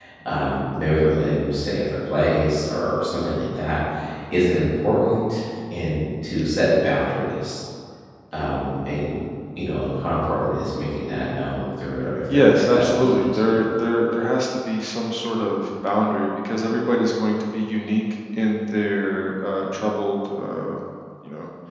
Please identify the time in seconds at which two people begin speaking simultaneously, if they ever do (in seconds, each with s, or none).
12.3 s